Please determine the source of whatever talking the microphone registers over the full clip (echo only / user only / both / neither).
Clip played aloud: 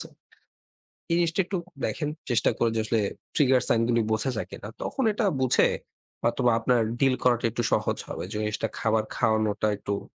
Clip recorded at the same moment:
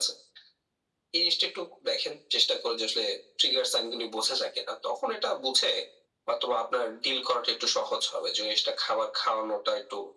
echo only